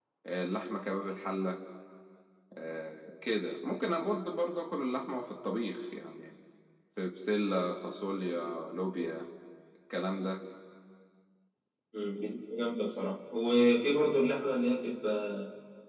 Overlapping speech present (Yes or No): No